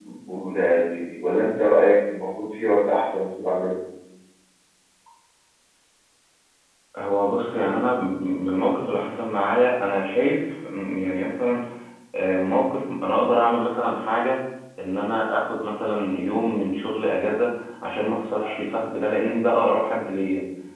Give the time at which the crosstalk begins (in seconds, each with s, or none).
none